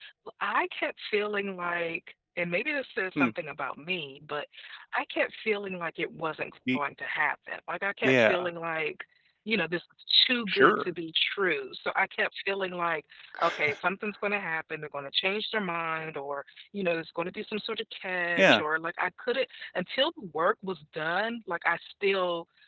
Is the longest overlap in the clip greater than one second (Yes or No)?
No